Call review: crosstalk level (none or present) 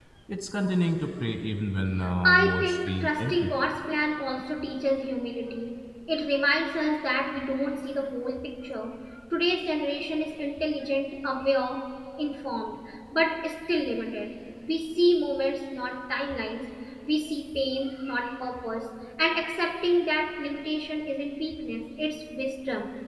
present